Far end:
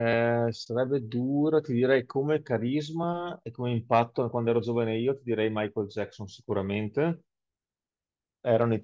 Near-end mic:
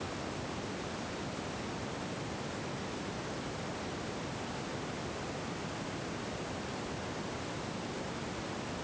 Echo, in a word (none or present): none